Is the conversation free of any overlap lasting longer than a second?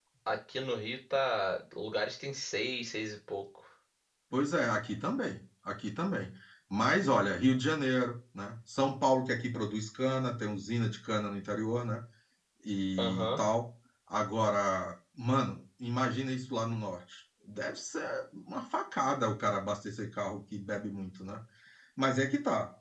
Yes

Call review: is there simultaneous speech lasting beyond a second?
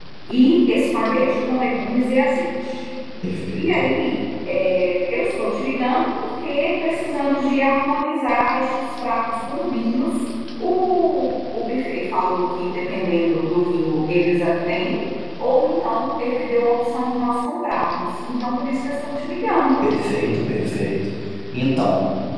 No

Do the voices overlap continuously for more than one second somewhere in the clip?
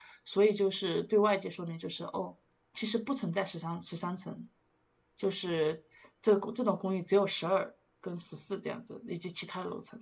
No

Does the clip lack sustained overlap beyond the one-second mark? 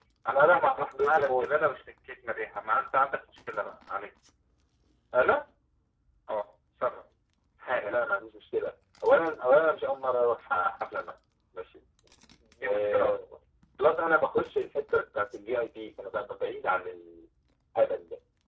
No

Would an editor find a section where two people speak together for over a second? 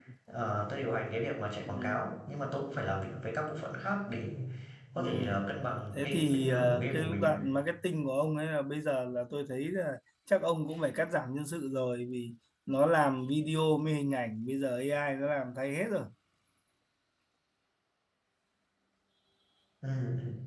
Yes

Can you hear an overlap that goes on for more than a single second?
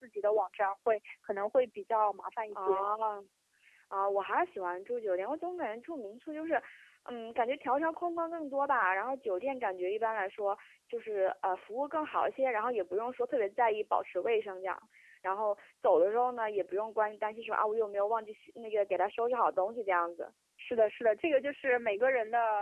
No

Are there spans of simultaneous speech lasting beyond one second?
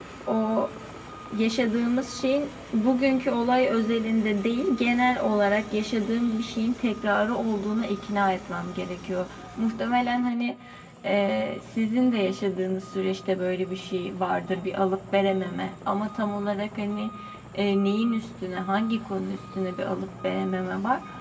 No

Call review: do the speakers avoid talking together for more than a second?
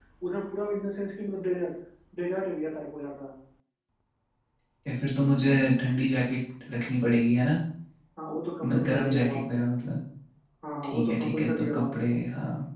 No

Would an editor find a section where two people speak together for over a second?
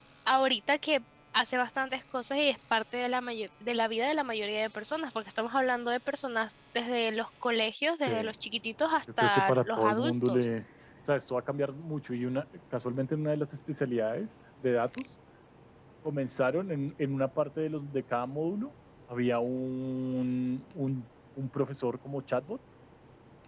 Yes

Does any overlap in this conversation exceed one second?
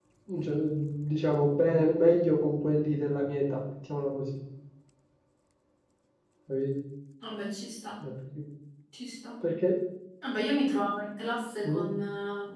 No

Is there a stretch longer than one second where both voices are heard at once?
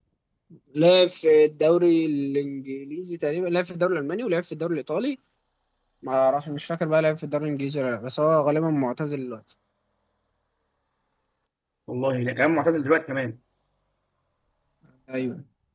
No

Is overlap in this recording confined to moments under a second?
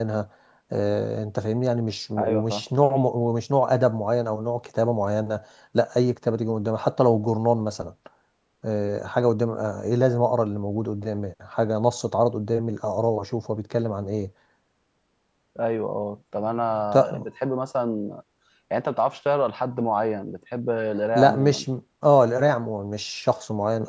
Yes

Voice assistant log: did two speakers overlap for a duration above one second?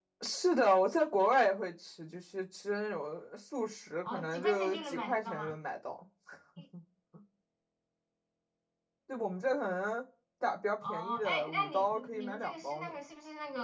Yes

